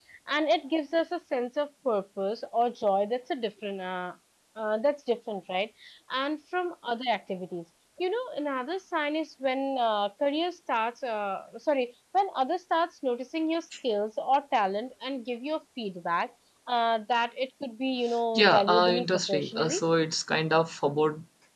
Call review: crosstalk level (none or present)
present